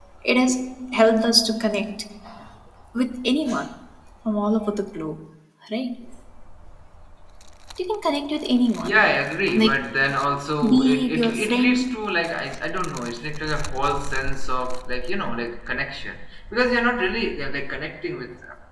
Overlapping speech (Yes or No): Yes